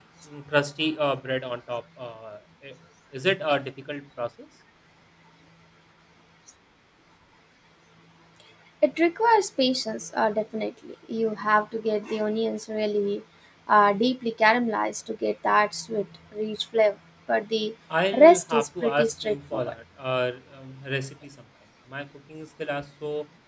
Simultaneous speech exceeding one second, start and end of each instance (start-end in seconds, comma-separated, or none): 18.1-19.7